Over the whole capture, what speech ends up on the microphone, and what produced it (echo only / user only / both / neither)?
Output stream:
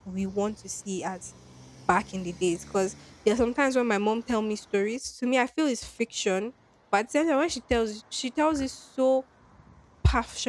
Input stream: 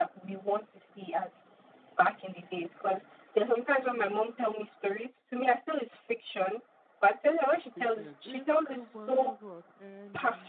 both